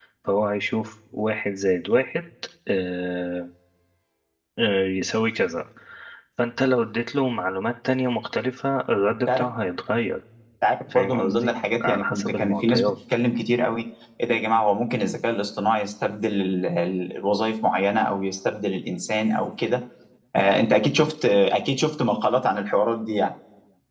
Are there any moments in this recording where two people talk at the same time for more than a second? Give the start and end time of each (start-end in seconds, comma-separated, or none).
10.9-12.9